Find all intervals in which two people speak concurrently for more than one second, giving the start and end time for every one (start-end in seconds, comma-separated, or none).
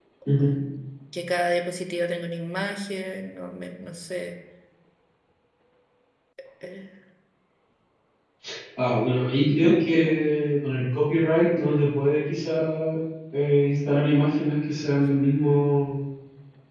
none